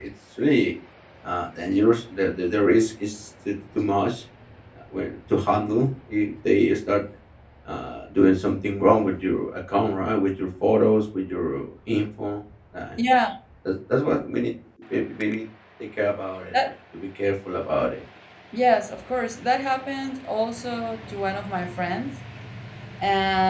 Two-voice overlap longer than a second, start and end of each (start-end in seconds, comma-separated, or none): none